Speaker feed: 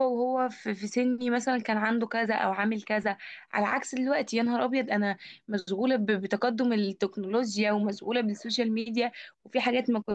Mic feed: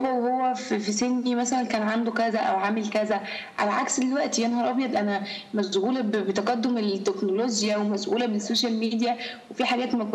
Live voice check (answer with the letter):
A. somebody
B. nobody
B